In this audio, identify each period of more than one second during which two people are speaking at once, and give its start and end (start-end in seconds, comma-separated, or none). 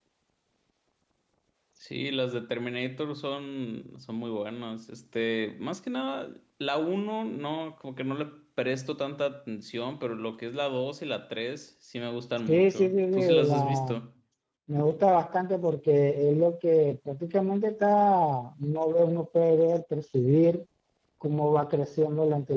12.5-13.9